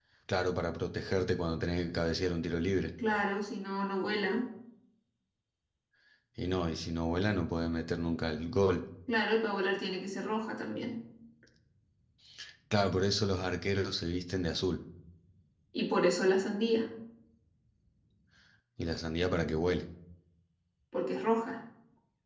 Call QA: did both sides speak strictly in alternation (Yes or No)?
Yes